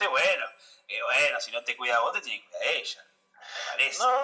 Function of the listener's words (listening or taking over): taking over